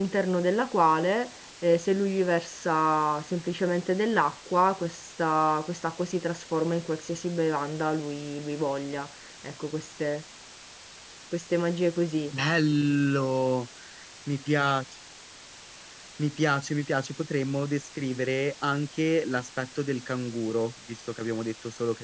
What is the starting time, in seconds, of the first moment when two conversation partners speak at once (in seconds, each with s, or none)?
none